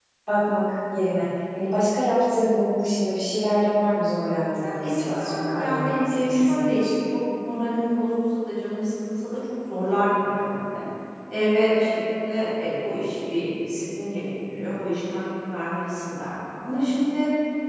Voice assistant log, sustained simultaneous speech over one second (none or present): present